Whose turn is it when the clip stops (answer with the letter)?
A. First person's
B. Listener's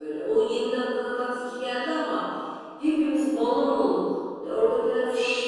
A